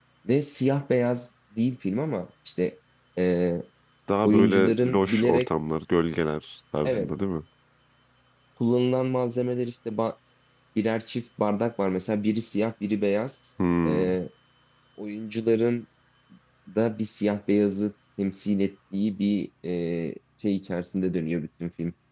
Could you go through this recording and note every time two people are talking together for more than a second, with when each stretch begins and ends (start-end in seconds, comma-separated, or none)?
4.2-5.5